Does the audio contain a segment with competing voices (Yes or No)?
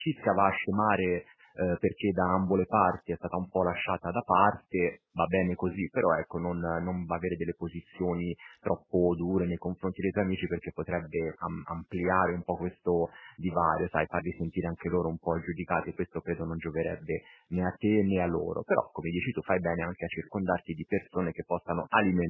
No